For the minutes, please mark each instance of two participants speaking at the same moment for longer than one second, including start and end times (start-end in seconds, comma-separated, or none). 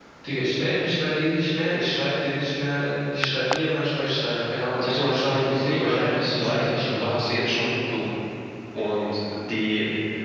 4.8-7.1